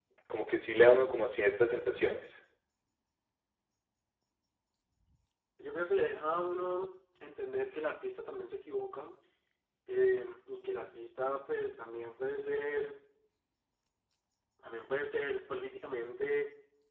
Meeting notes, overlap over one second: none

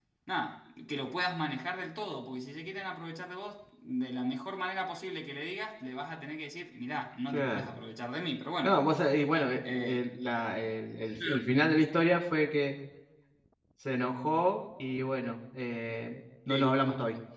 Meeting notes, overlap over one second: none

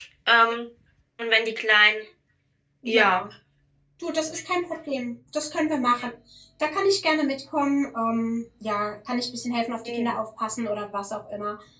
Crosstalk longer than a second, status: none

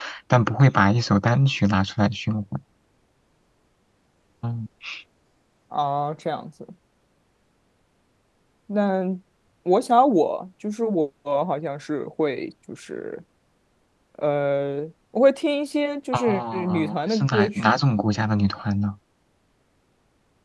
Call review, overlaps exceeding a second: present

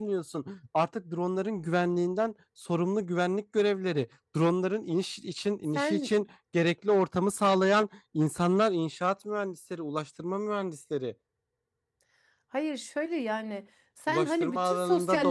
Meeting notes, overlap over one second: present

